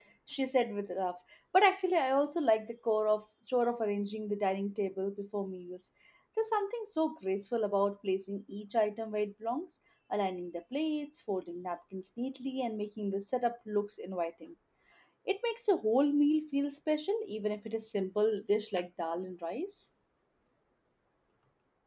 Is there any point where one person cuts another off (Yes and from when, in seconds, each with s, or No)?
No